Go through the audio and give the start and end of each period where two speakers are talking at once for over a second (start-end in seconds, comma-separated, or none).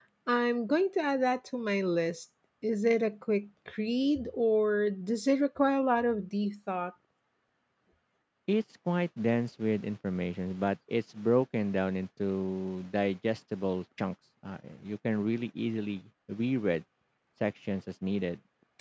none